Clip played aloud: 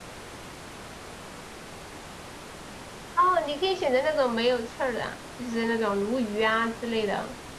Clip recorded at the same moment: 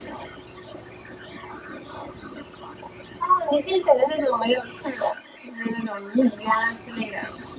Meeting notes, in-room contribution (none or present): none